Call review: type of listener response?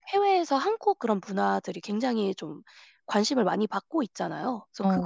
listening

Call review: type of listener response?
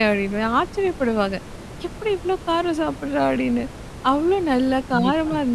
listening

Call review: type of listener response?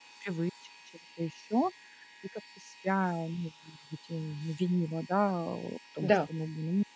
listening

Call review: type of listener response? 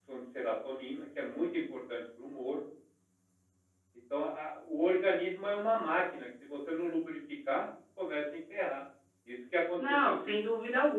taking over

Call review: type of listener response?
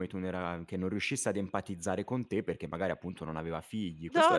taking over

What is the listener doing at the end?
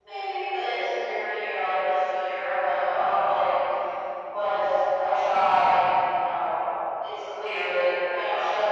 listening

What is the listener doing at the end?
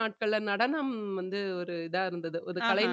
listening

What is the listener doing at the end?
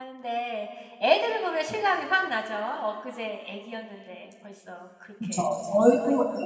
taking over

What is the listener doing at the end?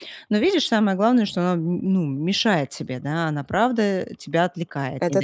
listening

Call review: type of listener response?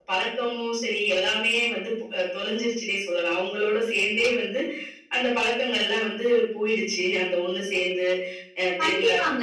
taking over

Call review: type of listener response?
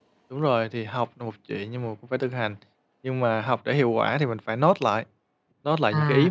listening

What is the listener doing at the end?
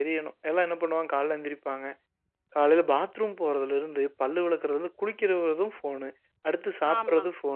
listening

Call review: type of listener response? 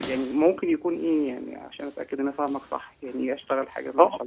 taking over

